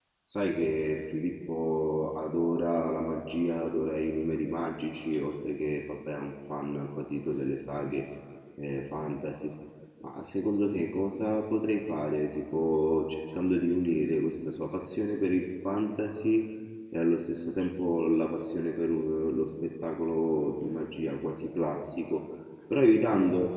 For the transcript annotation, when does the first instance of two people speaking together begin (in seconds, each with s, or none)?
none